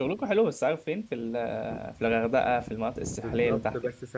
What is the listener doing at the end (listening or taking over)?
taking over